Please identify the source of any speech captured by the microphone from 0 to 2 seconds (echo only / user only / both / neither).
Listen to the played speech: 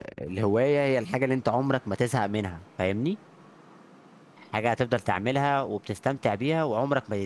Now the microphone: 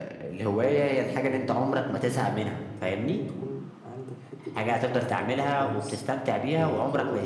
both